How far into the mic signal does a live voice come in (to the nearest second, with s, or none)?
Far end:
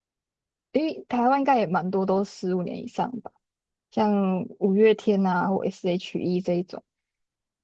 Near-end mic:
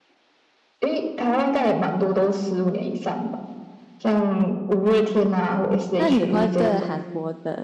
6 s